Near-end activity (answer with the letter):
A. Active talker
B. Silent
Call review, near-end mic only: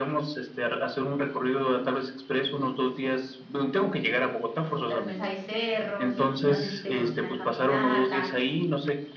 A